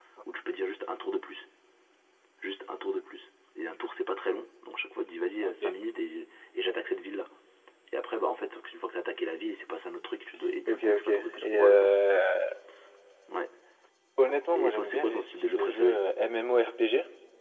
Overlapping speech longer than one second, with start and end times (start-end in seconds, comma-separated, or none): 10.7-11.9, 14.5-16.0